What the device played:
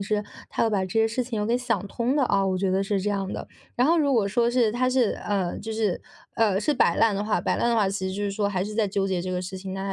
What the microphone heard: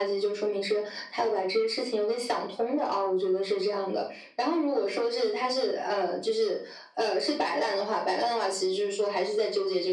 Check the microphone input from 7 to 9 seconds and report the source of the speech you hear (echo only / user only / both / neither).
echo only